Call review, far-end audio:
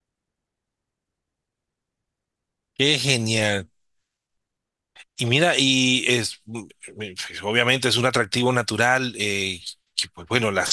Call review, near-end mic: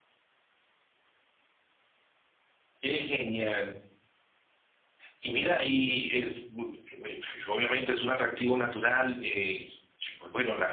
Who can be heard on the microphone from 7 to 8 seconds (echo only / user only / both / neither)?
echo only